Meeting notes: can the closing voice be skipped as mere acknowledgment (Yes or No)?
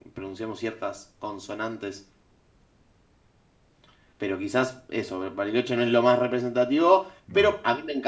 Yes